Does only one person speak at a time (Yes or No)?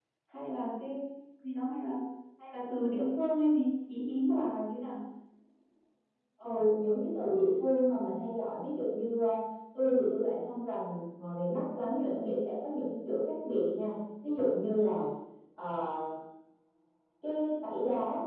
Yes